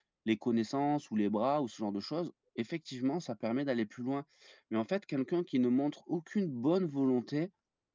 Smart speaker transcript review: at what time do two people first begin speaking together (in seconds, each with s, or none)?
none